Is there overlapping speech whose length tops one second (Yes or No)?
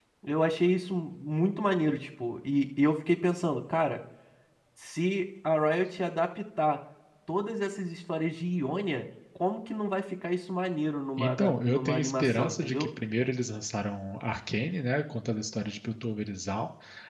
Yes